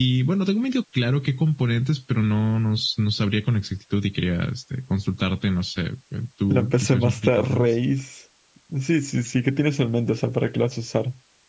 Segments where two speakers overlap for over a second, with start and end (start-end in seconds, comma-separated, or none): 6.5-7.7